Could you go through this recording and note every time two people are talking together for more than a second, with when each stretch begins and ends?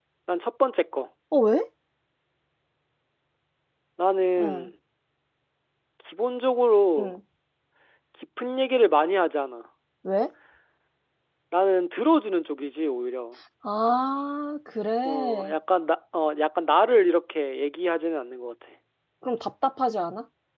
none

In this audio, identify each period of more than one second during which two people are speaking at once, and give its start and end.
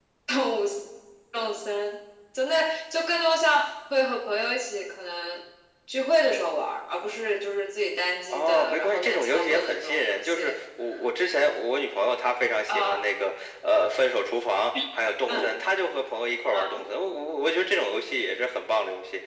8.3-10.5

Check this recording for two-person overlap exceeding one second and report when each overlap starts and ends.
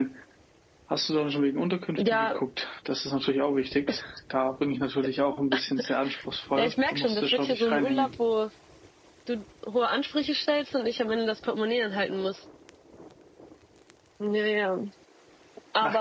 6.6-8.1

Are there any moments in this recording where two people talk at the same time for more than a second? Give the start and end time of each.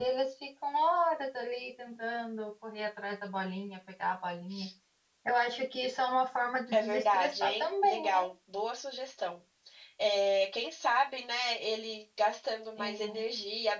6.7-8.2

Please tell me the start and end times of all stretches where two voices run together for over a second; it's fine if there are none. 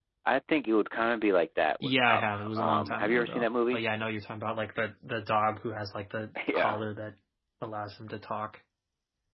1.8-3.8

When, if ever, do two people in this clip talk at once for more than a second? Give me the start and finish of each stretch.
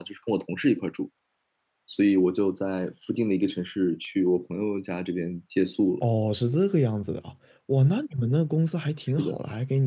none

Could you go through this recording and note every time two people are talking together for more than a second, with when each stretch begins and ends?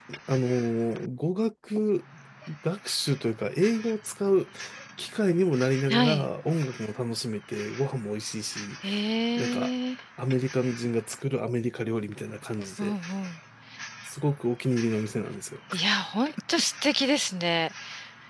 none

